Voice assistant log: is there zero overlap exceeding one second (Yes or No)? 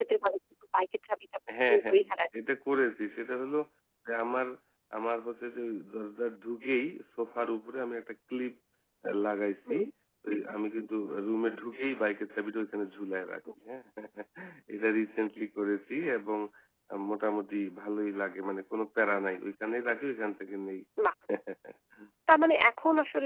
Yes